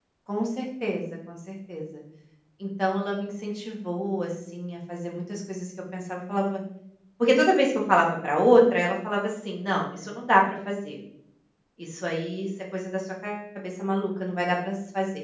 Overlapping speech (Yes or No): No